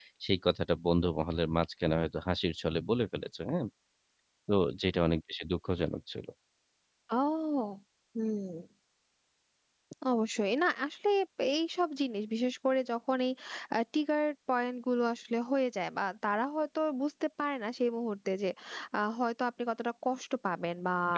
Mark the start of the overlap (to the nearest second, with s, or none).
none